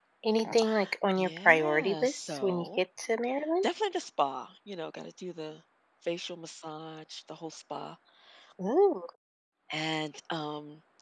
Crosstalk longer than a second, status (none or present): present